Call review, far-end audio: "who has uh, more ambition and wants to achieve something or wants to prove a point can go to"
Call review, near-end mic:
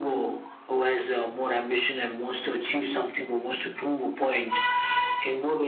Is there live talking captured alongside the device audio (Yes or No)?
No